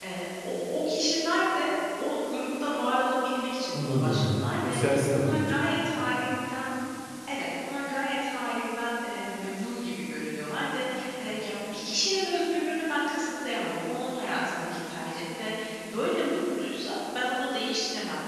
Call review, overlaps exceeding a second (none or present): present